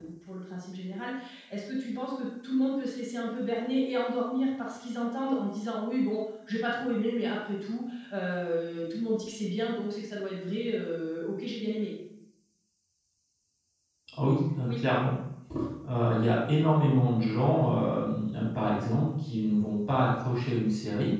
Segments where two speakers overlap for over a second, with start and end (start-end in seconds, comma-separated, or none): none